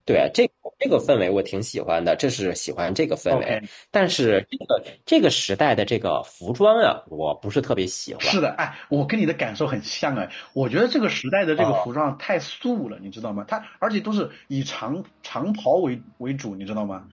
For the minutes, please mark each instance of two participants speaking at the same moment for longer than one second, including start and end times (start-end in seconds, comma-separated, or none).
none